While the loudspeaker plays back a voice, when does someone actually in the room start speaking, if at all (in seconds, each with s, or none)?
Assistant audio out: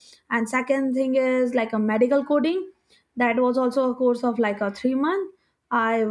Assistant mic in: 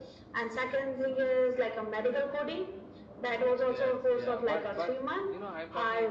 3.7 s